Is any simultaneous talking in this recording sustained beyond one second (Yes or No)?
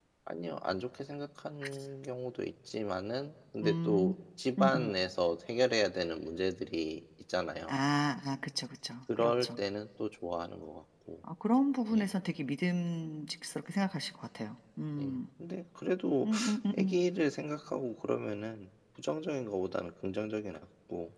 No